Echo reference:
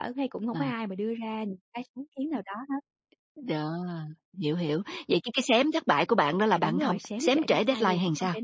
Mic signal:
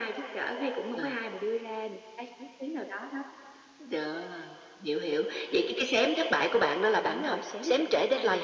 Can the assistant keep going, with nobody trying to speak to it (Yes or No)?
Yes